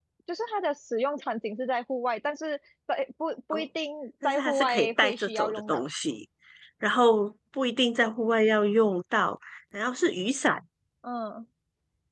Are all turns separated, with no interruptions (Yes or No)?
No